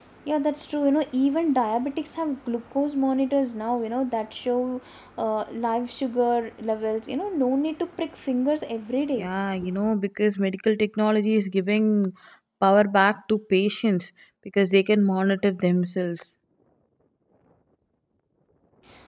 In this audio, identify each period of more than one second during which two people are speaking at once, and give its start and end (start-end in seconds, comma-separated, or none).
none